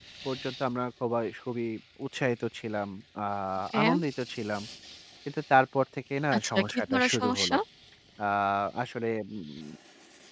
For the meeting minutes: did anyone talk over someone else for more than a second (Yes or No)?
Yes